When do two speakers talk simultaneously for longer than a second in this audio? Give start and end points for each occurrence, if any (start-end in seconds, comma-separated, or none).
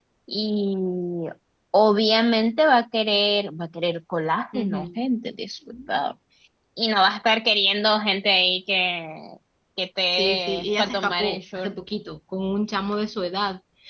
10.2-11.7